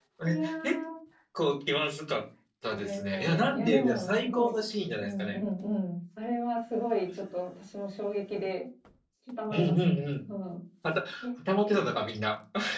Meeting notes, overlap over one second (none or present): present